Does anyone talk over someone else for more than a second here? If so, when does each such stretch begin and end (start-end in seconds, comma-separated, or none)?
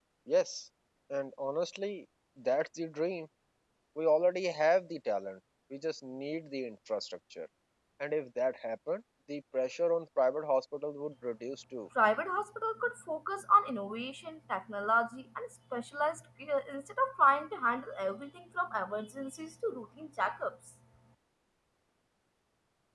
none